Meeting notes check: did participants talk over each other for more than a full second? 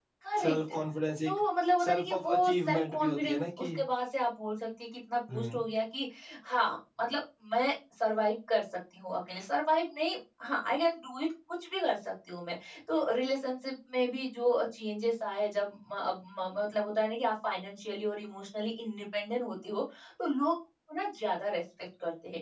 Yes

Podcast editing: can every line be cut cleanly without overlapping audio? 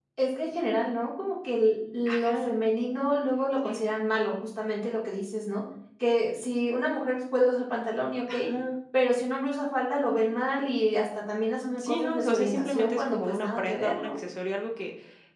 No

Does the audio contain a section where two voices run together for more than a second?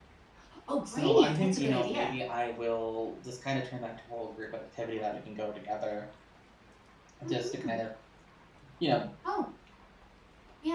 Yes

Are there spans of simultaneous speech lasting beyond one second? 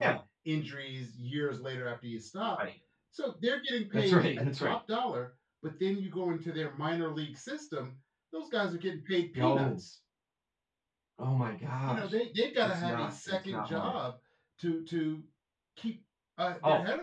Yes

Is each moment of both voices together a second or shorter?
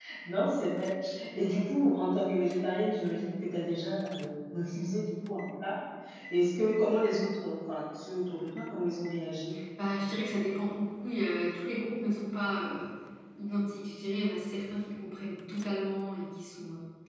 Yes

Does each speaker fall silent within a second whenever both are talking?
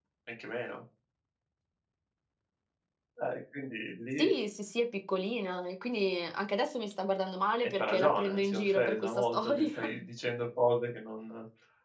No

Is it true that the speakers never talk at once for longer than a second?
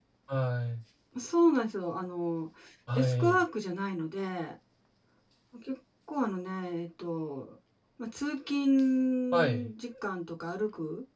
Yes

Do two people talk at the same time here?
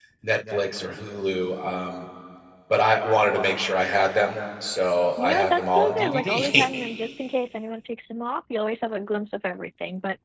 Yes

